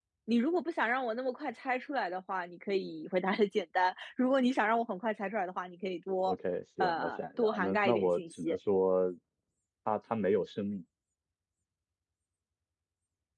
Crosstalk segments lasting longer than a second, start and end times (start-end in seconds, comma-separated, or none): 6.8-8.6